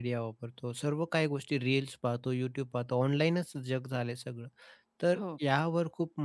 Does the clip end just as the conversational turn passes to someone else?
No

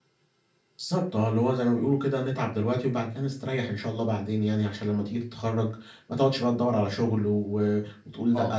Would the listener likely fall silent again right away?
No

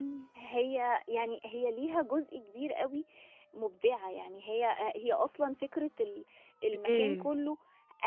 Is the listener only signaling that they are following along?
Yes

